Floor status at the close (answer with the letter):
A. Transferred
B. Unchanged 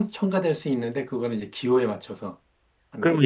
A